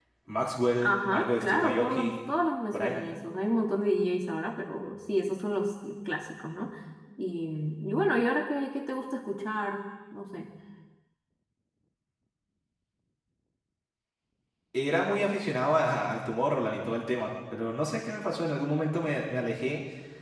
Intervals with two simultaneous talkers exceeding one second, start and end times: 0.8-2.1

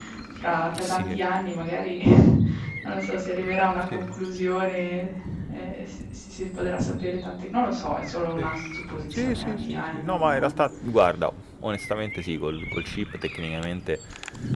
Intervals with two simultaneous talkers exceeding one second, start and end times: 9.1-10.6

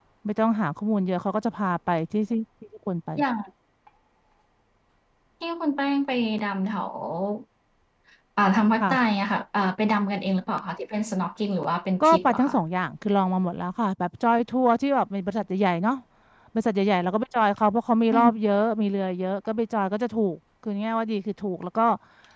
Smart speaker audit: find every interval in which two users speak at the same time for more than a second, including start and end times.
none

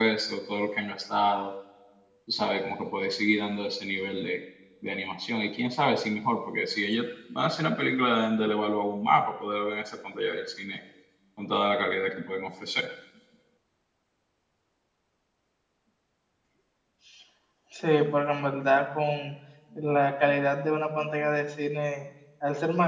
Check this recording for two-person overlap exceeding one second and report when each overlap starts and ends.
none

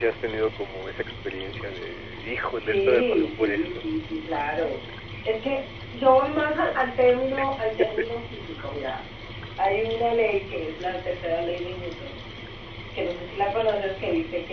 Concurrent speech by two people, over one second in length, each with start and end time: 2.6-3.9

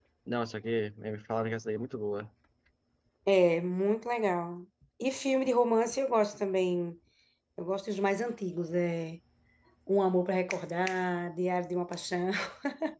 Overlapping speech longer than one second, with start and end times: none

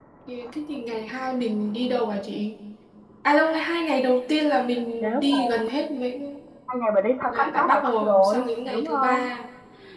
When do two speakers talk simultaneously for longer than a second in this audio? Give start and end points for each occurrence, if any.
7.3-9.3

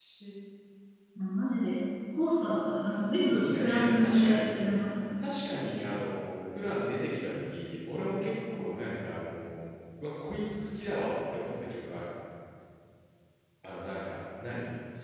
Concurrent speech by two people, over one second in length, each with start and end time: 3.3-4.7

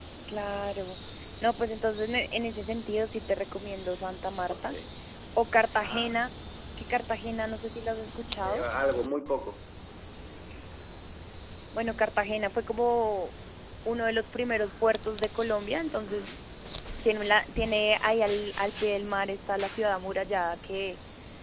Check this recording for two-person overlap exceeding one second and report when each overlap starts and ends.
none

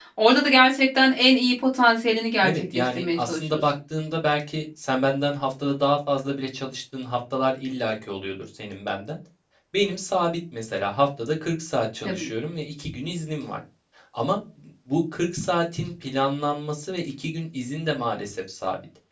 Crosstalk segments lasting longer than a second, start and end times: 2.4-3.6

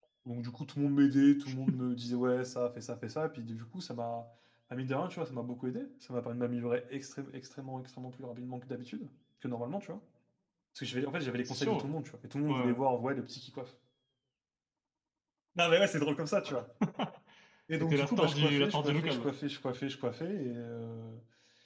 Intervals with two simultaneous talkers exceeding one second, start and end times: 17.8-19.3

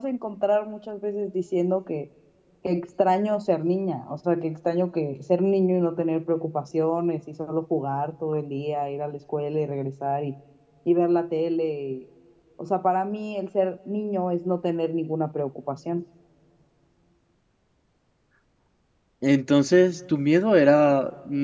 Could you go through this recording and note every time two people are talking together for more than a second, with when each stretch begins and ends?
none

